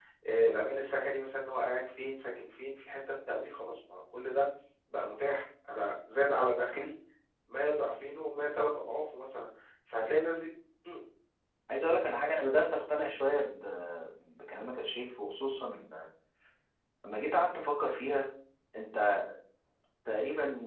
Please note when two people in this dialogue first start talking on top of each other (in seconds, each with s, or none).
none